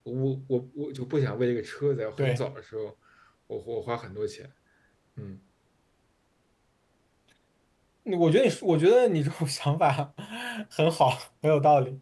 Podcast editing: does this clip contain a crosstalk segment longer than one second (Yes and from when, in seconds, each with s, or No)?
No